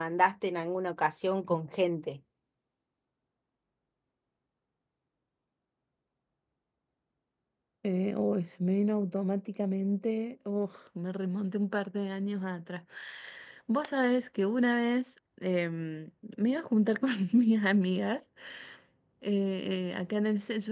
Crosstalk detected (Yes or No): No